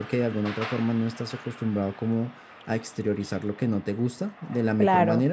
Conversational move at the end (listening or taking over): listening